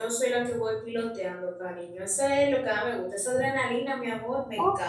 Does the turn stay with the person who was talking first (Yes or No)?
No